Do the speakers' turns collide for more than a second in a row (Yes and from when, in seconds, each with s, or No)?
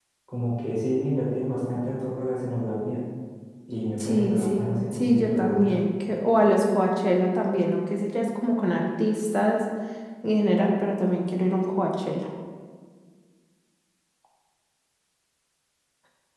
Yes, from 4.0 s